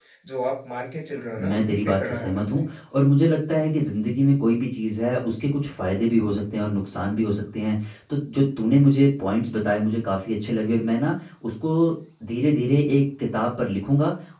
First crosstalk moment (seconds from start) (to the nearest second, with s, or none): 1 s